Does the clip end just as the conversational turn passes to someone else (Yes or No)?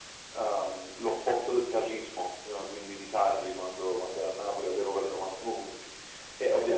No